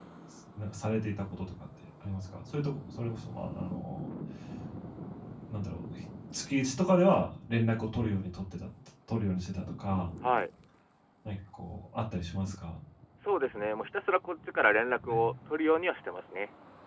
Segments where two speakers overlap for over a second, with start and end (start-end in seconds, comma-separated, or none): none